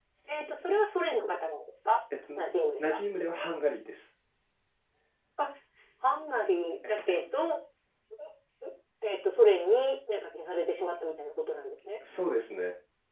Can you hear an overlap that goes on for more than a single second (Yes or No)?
No